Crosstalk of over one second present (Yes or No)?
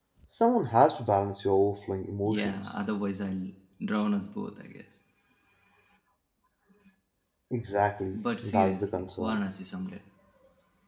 Yes